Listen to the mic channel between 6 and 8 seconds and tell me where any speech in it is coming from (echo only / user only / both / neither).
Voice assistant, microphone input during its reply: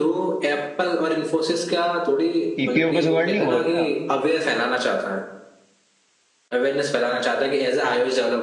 echo only